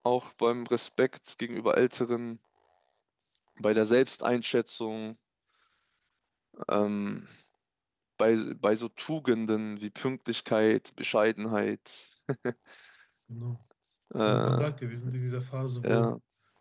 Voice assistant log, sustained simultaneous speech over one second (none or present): none